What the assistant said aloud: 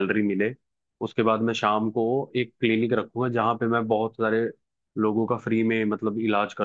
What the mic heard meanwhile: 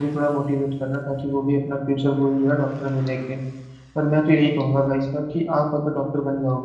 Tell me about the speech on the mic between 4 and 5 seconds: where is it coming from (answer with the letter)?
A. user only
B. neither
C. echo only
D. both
A